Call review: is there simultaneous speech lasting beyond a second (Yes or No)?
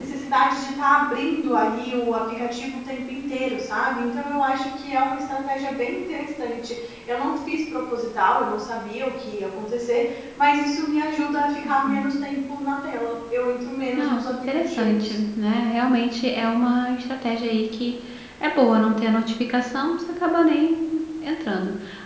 Yes